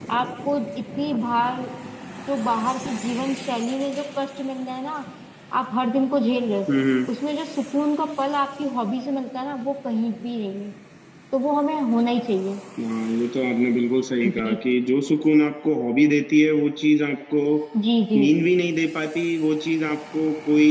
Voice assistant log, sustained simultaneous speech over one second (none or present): none